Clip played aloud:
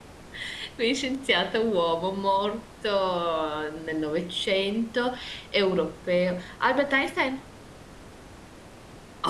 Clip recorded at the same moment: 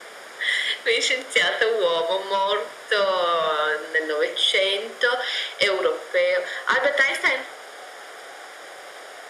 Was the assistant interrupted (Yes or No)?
No